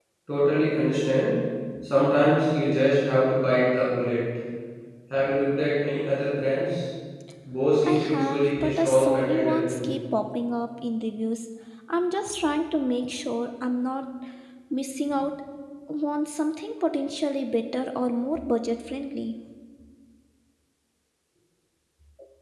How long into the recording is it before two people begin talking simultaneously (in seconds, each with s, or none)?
7.8 s